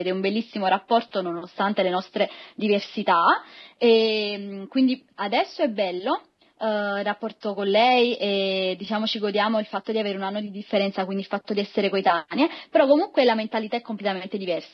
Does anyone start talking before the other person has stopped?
No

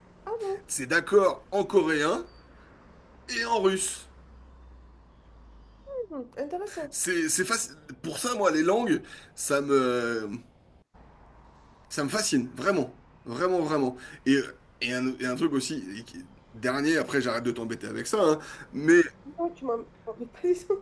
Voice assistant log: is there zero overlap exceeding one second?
Yes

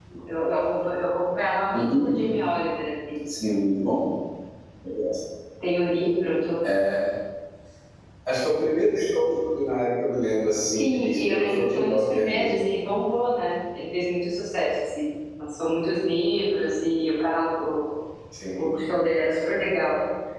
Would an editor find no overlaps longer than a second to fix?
No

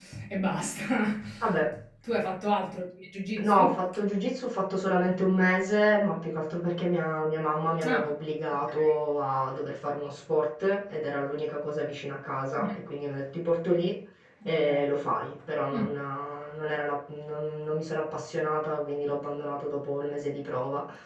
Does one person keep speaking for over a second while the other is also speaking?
No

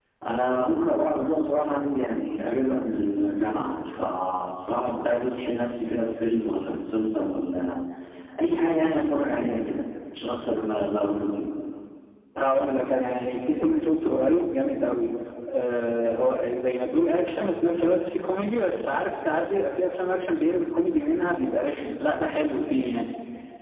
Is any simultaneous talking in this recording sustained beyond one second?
No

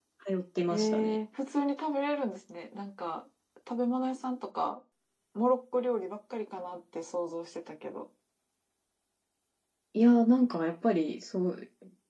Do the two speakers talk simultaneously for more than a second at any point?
No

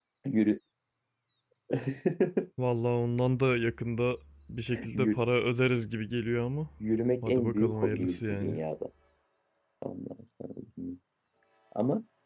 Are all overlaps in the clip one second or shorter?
No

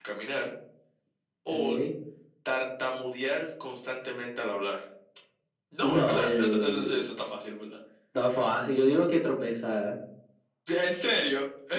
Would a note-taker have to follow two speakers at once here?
Yes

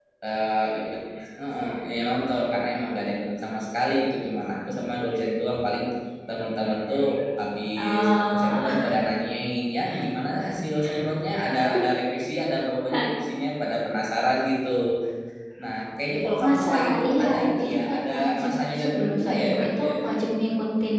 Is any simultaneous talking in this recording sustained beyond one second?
Yes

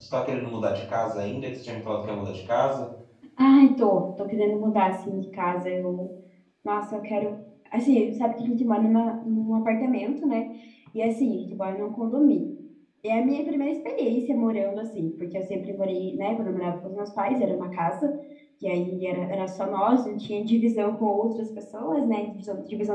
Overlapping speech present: No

